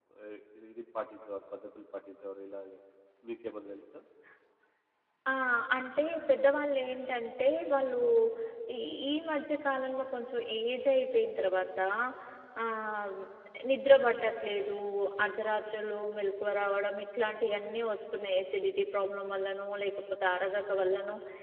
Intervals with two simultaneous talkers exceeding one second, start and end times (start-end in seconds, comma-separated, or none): none